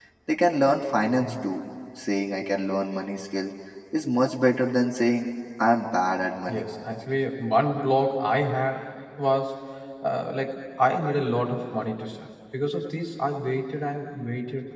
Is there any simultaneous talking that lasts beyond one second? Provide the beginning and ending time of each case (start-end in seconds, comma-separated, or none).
none